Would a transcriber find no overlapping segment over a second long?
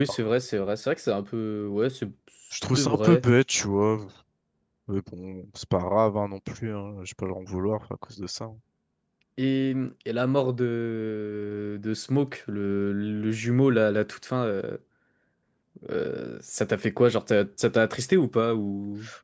Yes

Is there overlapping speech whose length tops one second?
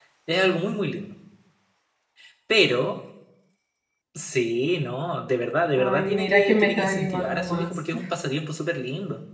Yes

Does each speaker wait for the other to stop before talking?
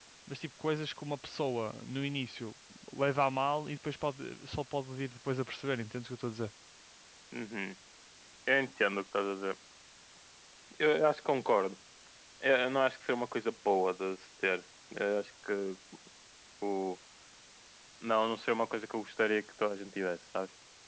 Yes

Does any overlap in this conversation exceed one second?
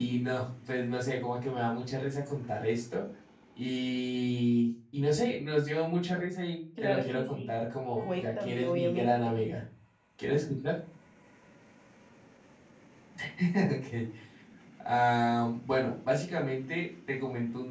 Yes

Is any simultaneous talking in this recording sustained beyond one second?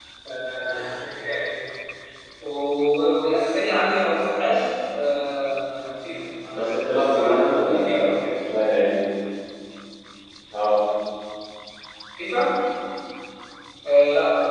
Yes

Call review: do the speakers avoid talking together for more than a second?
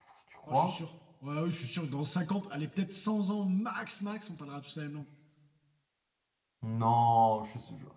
Yes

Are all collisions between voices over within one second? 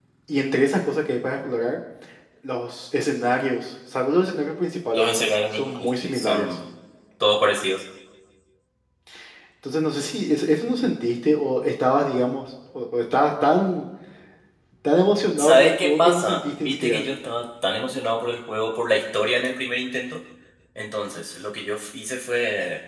No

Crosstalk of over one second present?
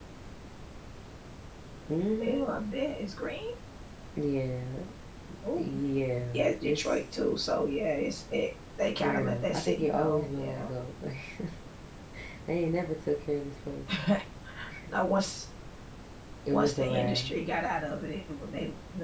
Yes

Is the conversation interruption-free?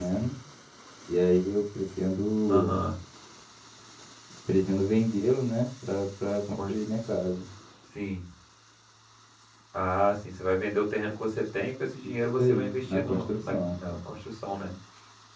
No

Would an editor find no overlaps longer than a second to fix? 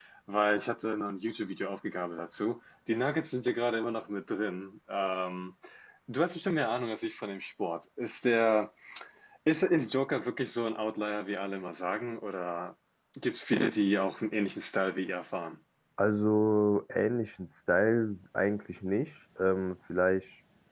Yes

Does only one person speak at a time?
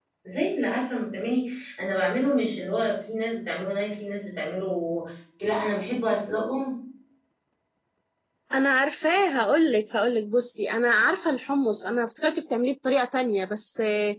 Yes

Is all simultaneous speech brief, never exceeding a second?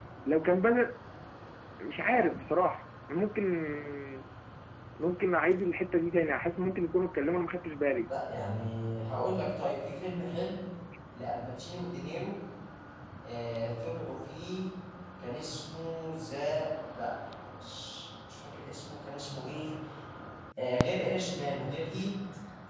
Yes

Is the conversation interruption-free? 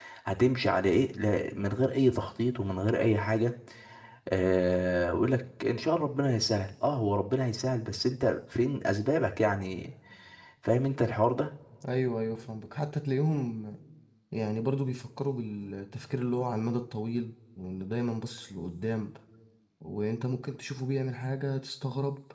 Yes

